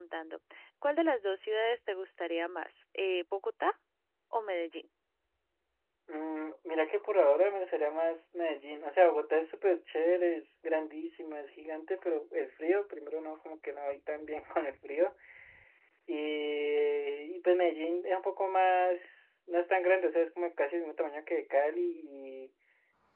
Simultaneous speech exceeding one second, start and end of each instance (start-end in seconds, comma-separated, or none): none